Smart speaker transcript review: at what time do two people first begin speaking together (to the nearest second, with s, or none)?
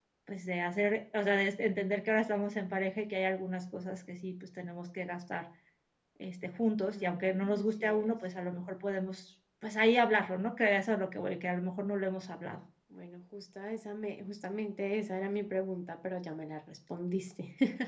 7 s